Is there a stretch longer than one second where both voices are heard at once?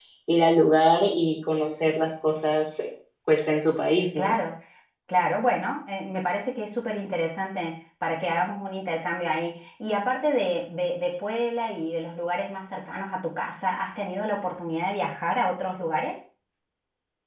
No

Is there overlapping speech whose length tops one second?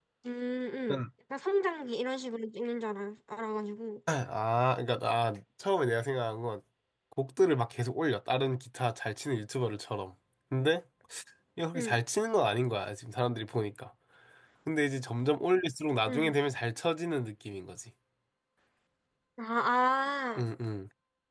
No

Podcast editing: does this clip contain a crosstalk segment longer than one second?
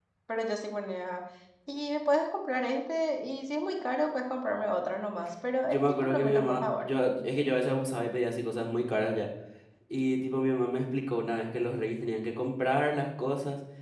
Yes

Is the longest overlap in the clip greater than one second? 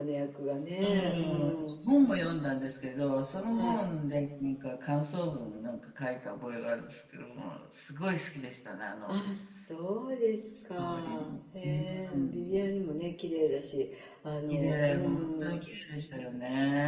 Yes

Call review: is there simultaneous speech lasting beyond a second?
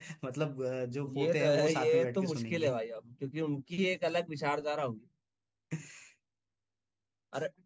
Yes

